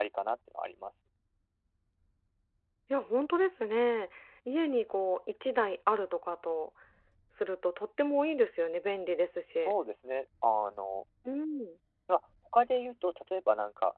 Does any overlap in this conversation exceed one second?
No

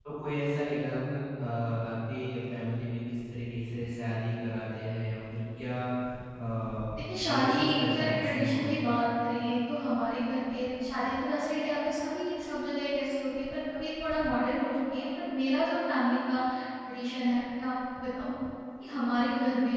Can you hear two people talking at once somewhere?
Yes, from 7.2 s

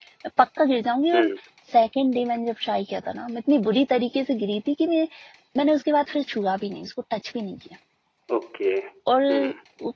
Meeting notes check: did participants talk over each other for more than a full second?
No

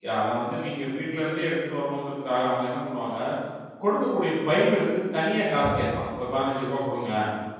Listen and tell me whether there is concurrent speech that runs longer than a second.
No

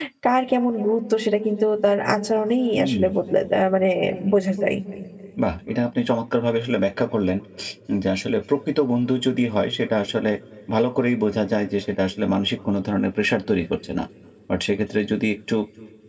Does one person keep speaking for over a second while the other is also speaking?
No

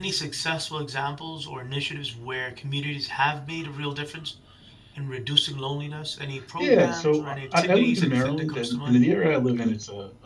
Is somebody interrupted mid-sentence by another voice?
Yes, from 6.6 s

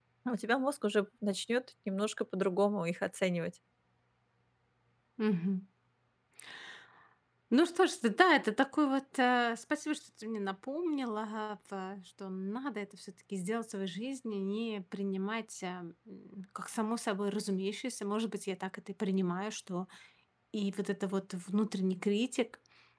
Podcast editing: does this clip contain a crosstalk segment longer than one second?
No

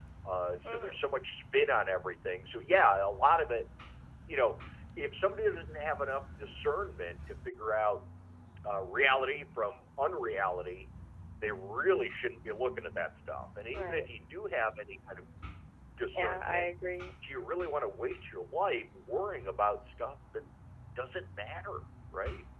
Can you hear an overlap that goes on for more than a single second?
No

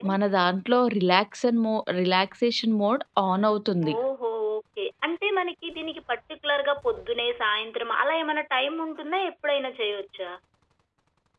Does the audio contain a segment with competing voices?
No

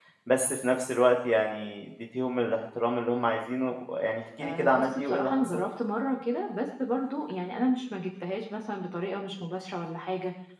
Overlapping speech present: Yes, from 4.4 s

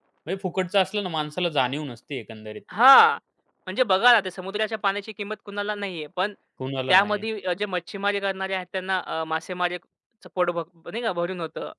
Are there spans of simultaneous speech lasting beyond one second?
No

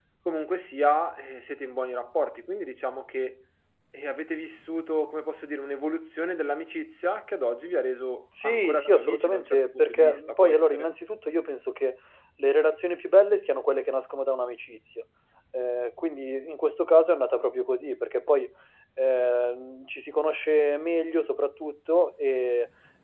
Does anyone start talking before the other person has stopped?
Yes, from 8.3 s

